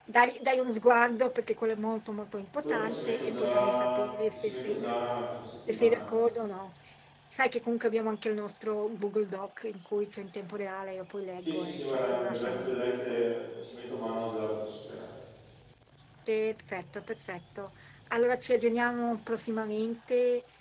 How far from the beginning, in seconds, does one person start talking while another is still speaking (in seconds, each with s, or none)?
2.6 s